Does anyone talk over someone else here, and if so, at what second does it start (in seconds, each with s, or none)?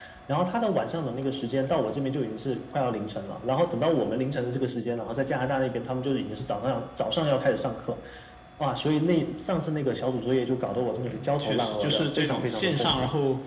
11.1 s